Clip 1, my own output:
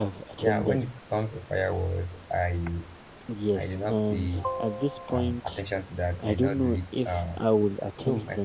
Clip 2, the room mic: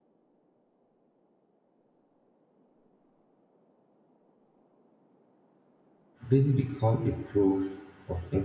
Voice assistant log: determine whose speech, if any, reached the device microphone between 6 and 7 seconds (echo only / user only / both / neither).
user only